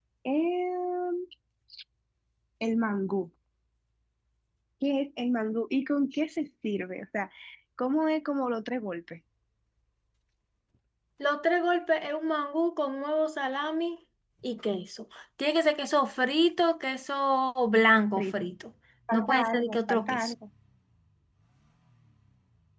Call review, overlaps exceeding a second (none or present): present